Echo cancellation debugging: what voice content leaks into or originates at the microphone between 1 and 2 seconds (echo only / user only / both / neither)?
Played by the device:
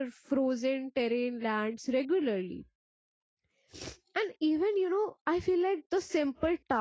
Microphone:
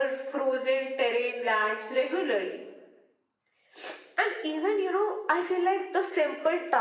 echo only